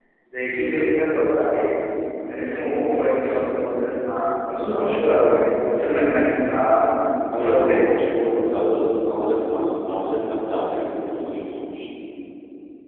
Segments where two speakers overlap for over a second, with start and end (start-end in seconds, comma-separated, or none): none